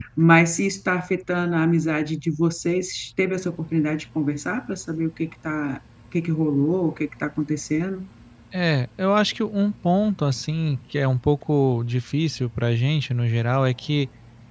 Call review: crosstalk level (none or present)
none